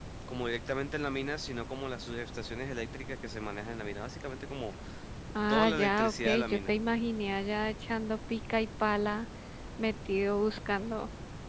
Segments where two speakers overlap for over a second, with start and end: 5.5-6.7

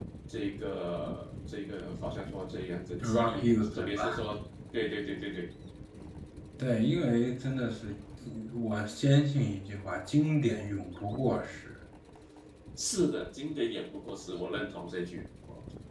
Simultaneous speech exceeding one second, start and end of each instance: 3.0-4.2

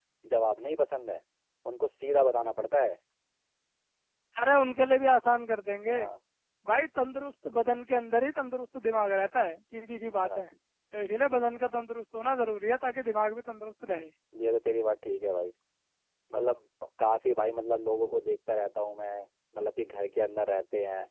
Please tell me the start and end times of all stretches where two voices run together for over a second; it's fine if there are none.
none

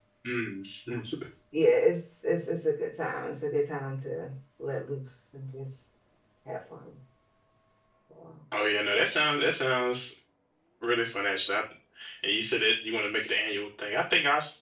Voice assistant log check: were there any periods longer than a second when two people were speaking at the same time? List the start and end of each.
none

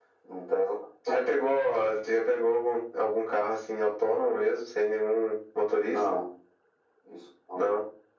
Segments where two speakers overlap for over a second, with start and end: none

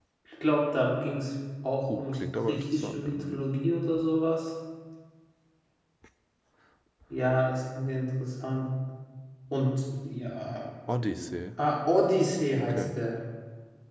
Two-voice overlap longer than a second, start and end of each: 1.9-3.4

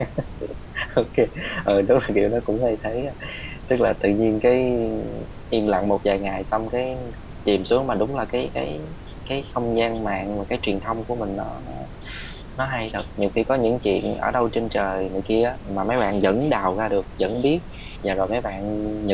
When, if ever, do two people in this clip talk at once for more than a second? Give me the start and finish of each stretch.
none

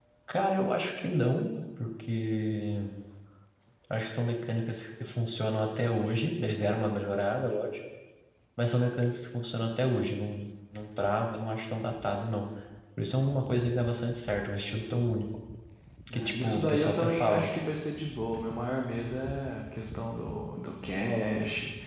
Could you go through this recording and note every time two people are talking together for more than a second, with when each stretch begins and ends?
16.1-17.5

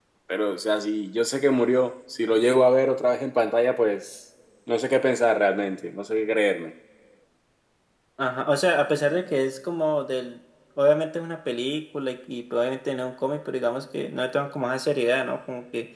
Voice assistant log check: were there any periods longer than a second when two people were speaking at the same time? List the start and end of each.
none

